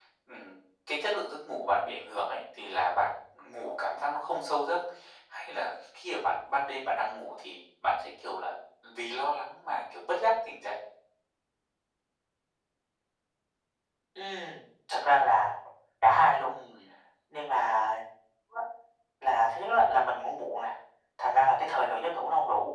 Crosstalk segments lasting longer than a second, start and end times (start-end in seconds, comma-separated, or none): none